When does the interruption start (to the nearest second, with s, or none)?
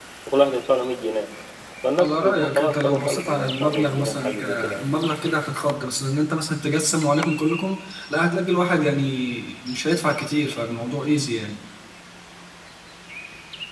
2 s